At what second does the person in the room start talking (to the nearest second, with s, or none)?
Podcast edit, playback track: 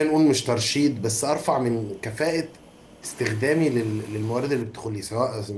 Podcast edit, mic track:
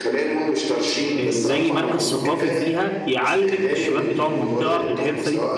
1 s